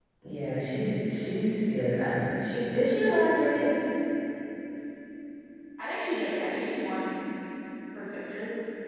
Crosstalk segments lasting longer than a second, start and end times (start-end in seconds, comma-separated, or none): none